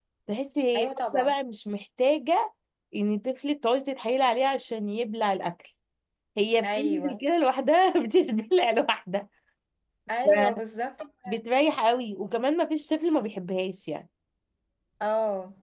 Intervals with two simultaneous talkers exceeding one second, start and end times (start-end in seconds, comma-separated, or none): none